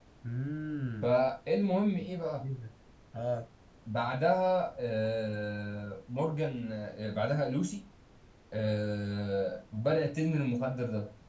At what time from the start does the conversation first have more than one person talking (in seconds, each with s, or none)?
none